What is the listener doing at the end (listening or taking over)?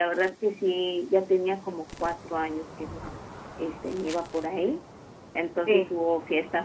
listening